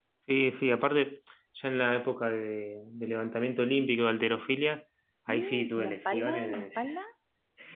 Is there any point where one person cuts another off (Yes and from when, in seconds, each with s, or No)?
Yes, from 5.3 s